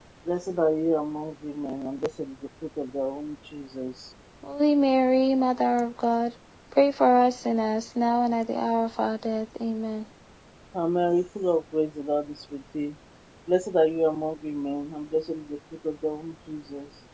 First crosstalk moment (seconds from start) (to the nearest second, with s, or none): none